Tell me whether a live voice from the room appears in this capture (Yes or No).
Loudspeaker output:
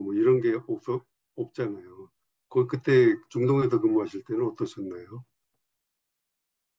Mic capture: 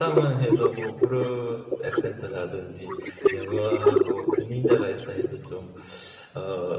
Yes